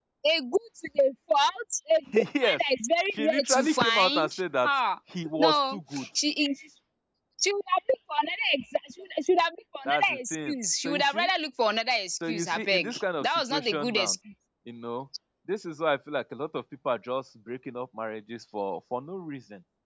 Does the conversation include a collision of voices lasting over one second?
Yes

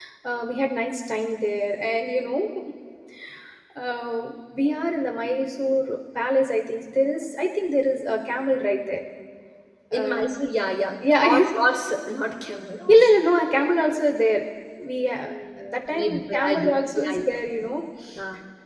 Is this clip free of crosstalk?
No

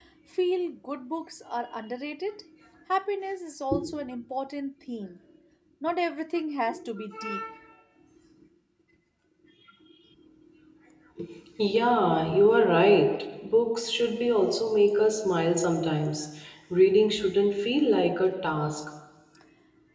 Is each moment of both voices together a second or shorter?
Yes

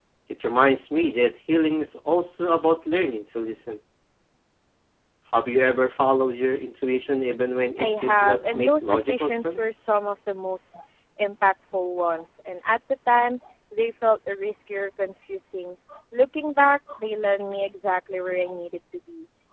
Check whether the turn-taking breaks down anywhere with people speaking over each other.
Yes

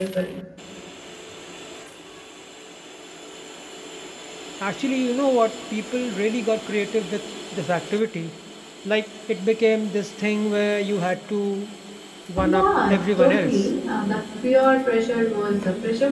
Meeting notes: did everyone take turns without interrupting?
No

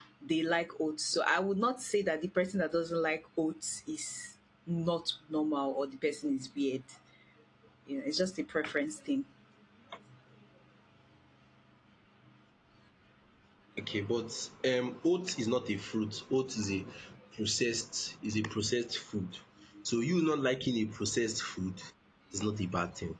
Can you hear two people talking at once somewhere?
No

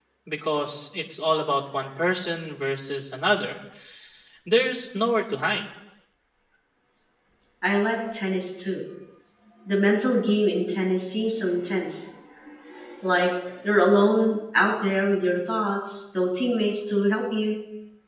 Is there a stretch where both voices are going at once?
No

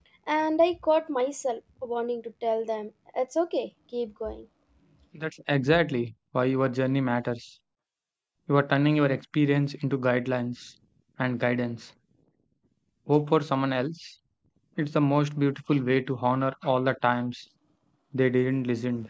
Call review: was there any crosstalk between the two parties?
No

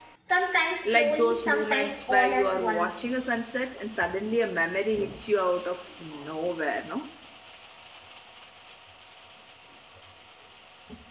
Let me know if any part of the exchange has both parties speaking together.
Yes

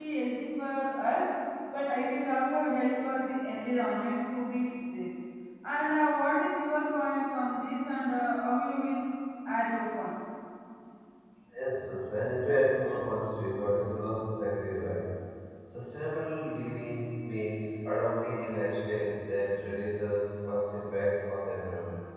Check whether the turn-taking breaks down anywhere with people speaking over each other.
No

